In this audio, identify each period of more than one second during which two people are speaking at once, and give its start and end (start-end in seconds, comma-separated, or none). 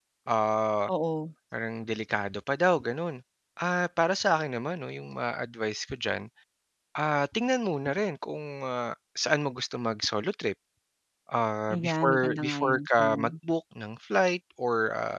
11.7-13.4